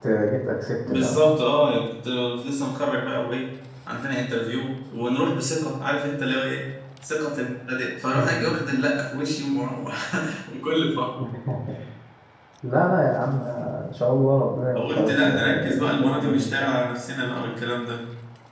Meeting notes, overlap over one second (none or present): present